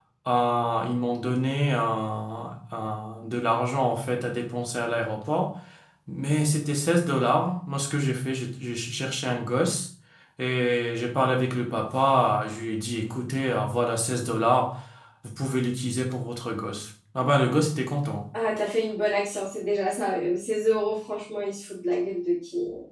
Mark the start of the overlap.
none

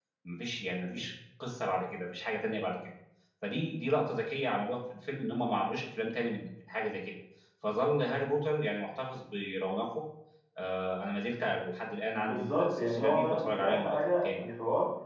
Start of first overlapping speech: 12.3 s

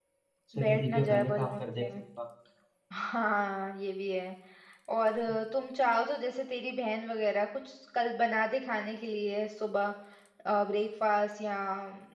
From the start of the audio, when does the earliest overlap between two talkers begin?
0.6 s

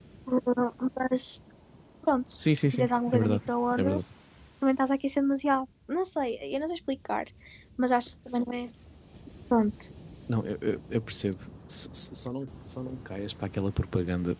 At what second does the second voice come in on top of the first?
2.5 s

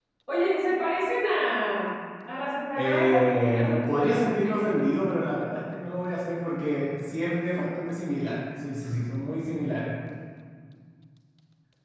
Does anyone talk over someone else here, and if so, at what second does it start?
2.8 s

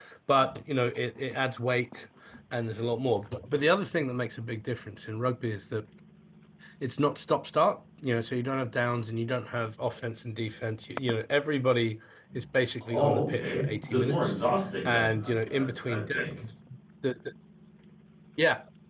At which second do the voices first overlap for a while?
12.9 s

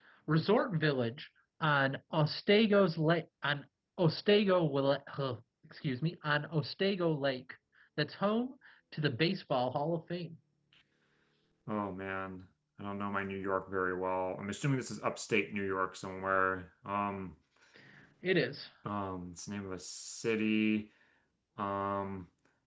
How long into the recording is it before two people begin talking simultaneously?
none

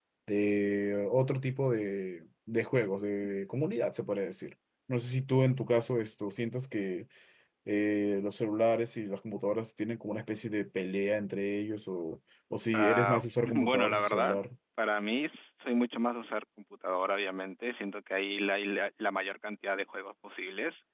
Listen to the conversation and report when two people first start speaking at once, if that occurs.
12.7 s

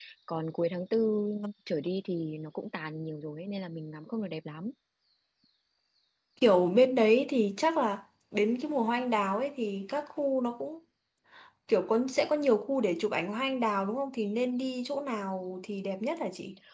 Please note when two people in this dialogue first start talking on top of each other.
none

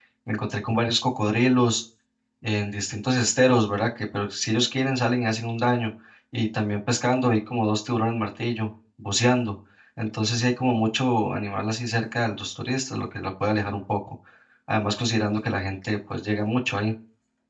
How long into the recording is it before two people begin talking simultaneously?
none

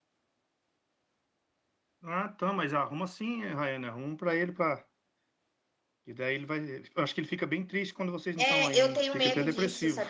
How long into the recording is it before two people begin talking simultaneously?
8.4 s

